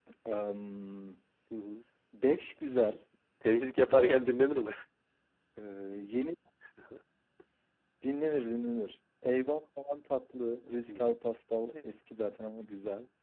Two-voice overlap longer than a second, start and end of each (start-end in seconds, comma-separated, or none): none